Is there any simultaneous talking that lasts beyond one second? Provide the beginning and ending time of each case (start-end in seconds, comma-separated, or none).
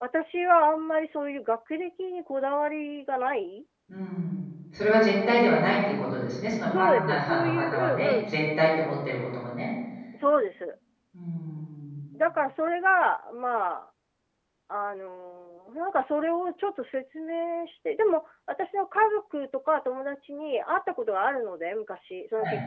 6.7-8.3